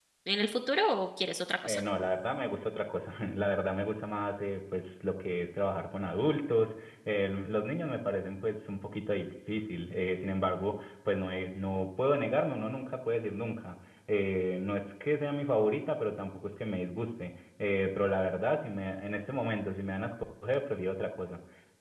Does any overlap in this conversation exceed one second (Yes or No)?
No